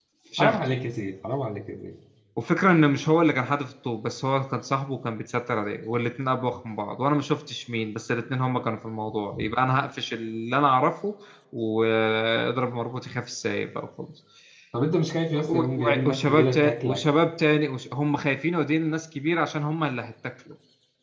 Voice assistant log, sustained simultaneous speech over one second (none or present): present